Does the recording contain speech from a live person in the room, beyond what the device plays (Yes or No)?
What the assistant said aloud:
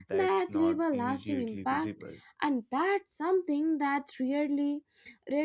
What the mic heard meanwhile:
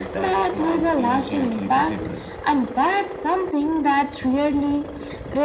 No